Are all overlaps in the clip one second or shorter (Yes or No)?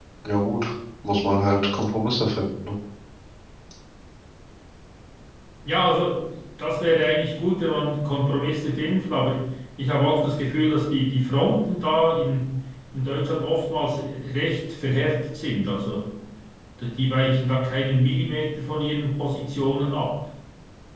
Yes